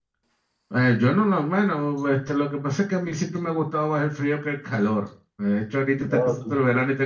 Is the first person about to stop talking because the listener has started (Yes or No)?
No